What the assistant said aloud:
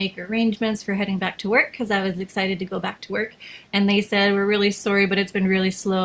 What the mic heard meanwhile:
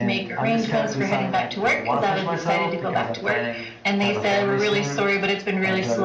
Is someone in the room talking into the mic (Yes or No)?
Yes